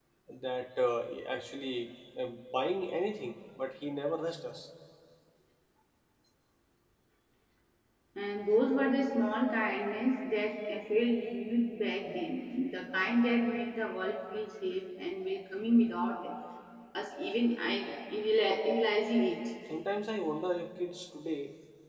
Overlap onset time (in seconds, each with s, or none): none